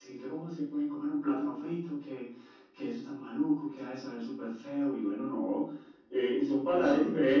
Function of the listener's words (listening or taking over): listening